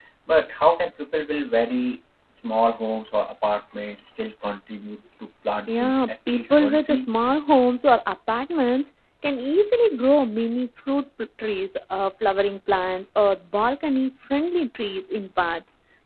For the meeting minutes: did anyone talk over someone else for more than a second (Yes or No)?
Yes